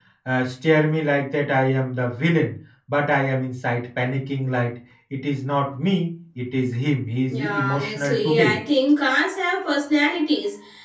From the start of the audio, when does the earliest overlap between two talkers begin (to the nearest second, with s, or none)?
7 s